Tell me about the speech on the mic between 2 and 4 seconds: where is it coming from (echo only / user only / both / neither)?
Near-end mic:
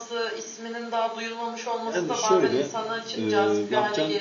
both